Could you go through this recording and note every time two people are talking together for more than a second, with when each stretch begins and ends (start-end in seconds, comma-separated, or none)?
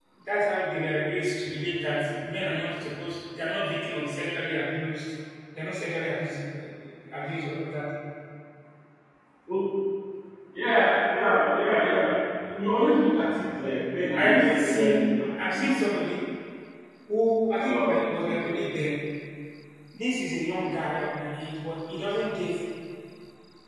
14.2-15.7